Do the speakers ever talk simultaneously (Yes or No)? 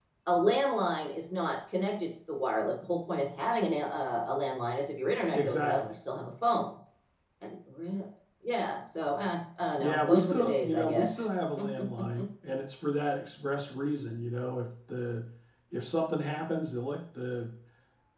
Yes